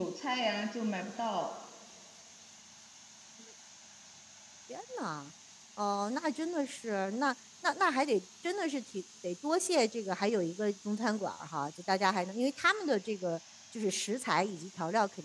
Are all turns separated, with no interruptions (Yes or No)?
Yes